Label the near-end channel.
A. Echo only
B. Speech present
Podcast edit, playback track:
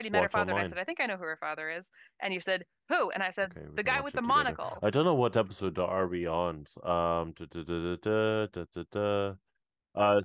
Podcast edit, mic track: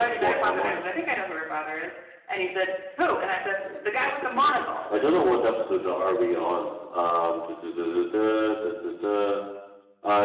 A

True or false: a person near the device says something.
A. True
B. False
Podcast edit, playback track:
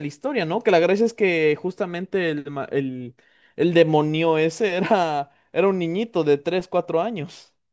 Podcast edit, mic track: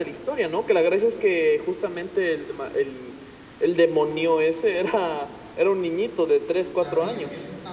A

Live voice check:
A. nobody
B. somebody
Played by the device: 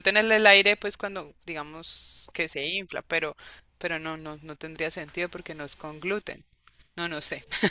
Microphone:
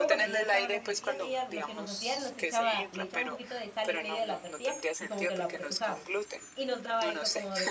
B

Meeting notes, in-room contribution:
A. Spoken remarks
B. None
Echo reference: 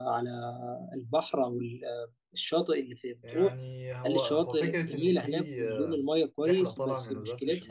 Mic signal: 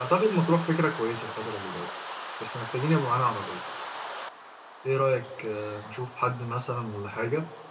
A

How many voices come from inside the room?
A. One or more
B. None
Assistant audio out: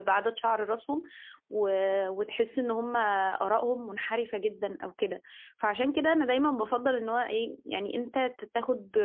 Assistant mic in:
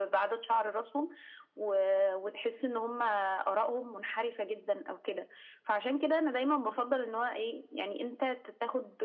B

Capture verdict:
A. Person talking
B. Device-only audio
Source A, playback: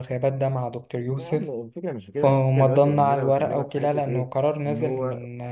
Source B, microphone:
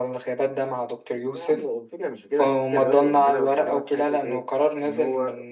B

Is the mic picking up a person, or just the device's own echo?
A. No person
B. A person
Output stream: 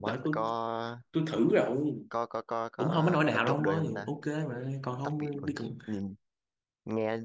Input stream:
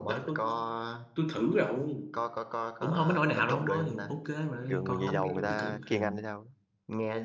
B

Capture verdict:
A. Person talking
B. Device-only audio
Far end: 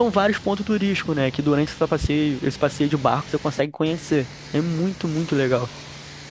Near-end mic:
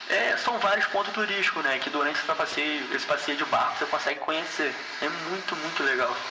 B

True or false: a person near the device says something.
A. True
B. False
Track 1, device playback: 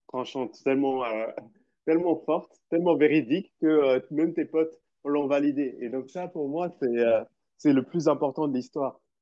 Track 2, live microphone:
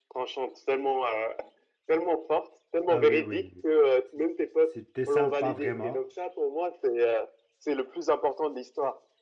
A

